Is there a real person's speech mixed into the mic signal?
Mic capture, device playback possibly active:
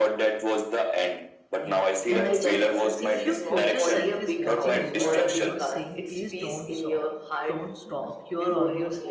Yes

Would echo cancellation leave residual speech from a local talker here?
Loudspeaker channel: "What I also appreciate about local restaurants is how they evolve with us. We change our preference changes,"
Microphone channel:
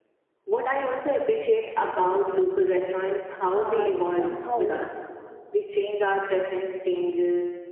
Yes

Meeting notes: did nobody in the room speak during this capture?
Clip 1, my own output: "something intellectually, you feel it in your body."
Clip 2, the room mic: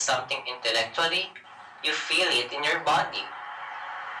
Yes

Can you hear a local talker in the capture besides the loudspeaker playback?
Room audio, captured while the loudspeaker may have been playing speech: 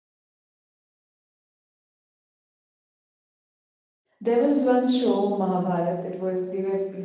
Yes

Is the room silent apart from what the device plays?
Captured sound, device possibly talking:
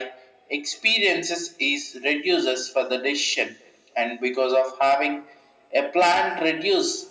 Yes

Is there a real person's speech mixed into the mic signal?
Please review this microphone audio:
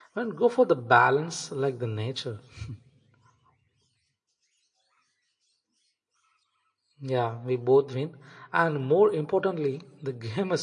Yes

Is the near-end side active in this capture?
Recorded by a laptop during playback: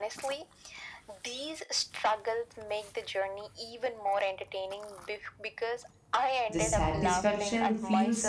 Yes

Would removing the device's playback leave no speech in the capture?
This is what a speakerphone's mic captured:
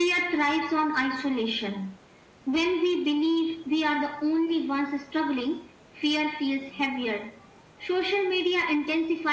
Yes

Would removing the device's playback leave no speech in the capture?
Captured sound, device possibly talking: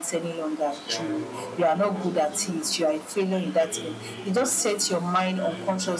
No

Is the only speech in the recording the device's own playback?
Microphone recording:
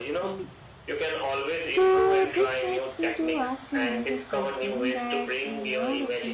No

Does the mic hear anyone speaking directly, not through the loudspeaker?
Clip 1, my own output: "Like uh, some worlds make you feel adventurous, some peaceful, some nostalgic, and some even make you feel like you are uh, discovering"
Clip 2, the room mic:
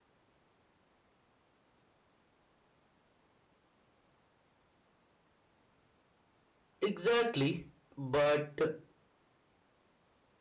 Yes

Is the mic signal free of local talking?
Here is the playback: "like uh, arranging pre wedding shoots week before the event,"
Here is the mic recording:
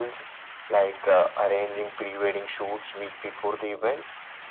Yes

